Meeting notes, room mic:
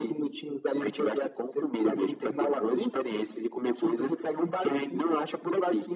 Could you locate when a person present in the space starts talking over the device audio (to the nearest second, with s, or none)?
none